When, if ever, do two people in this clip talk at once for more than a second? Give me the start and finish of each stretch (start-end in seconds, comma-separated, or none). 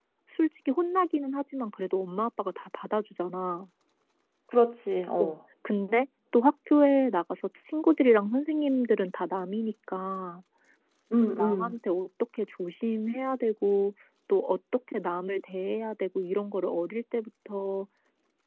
none